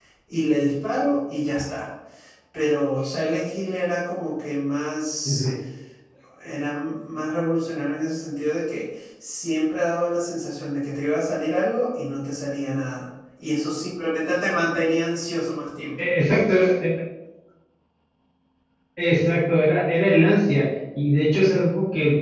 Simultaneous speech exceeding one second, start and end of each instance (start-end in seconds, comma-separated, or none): none